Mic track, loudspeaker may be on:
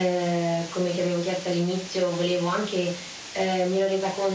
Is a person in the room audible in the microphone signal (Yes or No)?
No